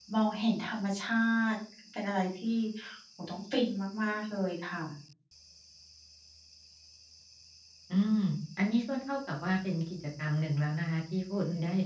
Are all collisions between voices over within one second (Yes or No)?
Yes